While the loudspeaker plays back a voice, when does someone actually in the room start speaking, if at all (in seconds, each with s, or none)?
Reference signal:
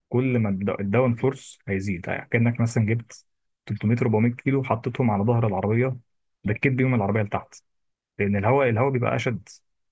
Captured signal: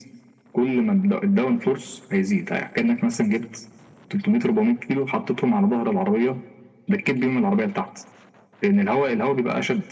none